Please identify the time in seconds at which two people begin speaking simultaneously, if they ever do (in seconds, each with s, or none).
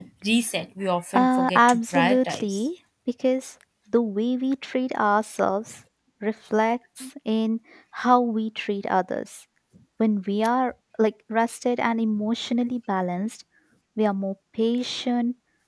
1.1 s